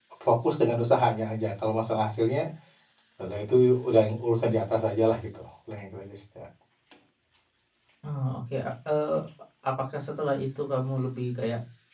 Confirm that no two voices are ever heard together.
Yes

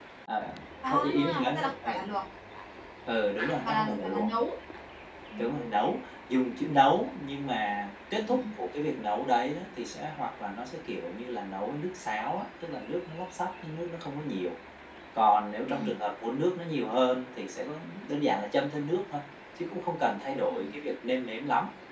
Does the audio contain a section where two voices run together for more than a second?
Yes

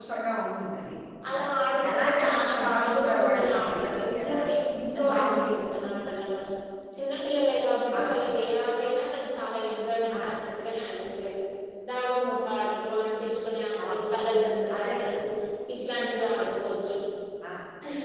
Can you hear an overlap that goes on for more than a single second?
Yes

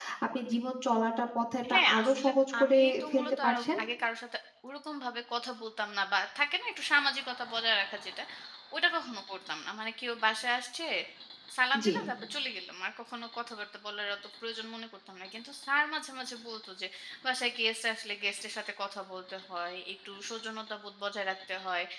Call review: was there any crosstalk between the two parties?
Yes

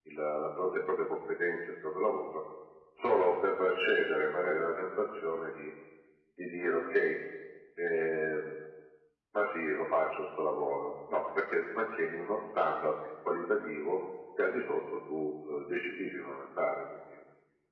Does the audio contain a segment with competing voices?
No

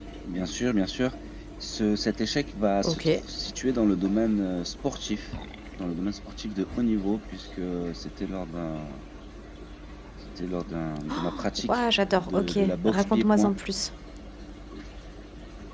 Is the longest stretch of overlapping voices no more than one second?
No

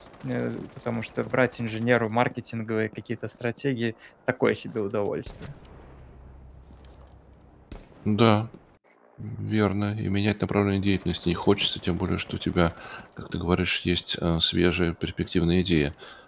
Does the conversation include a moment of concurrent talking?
No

